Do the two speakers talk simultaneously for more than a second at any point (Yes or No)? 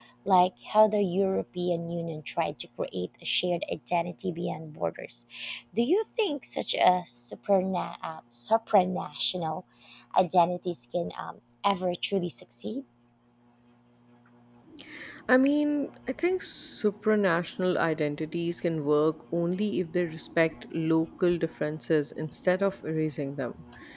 No